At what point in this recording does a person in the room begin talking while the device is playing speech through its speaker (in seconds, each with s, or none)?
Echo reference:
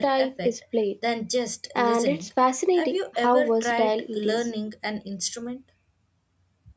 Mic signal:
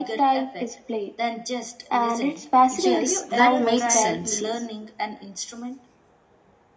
2.7 s